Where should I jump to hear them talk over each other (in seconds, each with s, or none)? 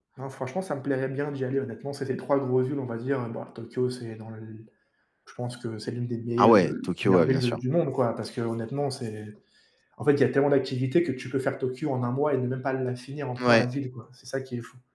6.4 s